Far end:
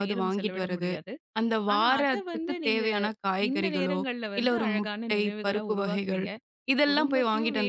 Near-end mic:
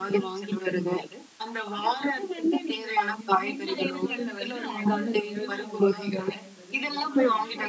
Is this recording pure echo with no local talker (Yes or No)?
No